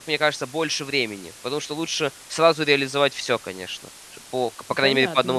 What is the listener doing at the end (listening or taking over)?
taking over